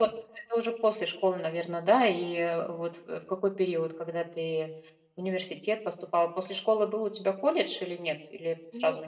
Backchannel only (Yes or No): No